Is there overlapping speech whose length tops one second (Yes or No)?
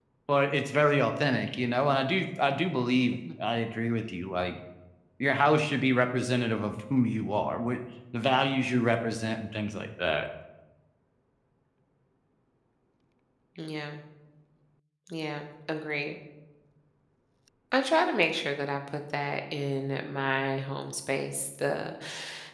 No